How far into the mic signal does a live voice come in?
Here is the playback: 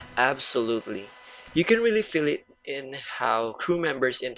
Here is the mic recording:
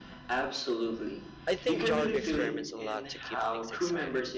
1.4 s

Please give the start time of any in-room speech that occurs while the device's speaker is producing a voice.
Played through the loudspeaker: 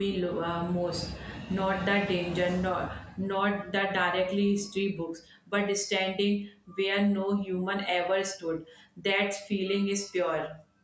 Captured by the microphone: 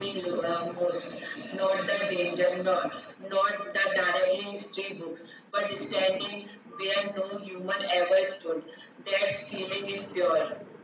none

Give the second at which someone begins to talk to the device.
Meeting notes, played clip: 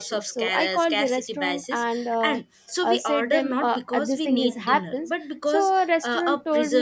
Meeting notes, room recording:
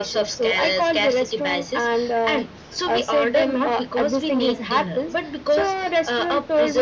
none

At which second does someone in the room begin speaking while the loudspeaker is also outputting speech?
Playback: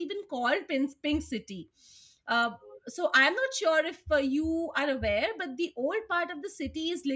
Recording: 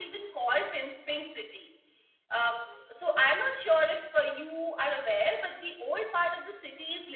none

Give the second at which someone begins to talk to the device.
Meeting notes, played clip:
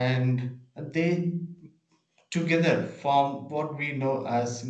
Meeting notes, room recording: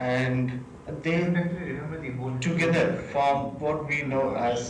1.1 s

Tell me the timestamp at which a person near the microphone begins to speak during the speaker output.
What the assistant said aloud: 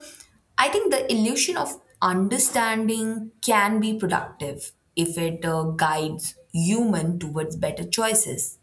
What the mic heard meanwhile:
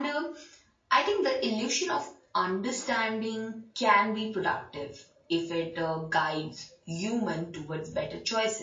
none

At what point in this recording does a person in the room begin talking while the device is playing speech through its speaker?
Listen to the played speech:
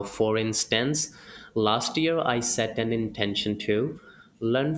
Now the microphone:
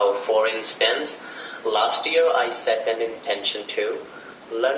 none

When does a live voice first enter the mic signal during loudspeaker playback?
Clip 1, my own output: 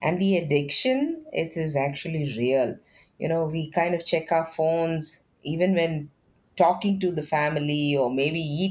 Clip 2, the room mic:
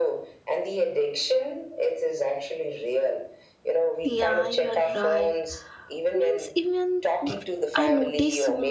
4.0 s

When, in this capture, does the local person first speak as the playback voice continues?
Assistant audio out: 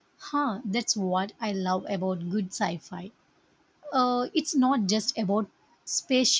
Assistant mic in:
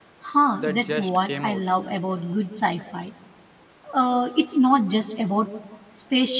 0.5 s

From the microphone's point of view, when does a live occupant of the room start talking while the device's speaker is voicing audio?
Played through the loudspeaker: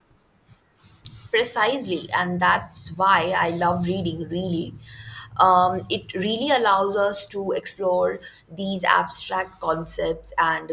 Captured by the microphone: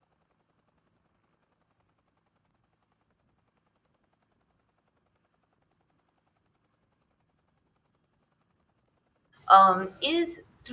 9.5 s

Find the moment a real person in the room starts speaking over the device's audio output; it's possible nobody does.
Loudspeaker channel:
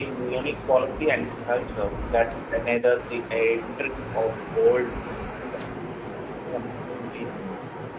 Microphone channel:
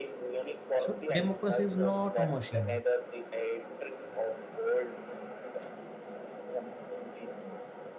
0.8 s

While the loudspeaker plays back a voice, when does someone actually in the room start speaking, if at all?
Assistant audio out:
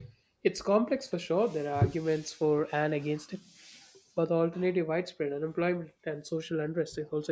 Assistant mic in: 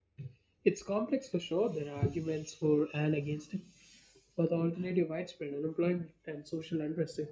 none

